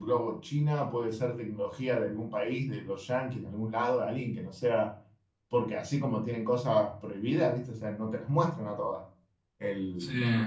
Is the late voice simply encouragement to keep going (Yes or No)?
Yes